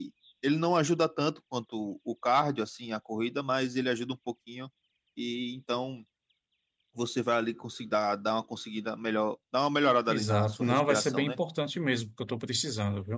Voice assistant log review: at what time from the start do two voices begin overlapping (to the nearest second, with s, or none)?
10 s